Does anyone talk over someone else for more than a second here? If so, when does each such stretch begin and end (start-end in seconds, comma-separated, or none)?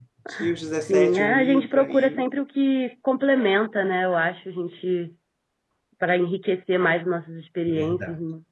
0.9-2.2